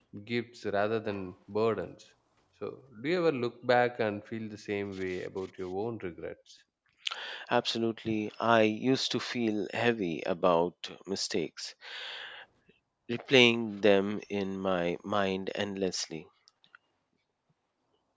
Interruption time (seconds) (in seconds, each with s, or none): none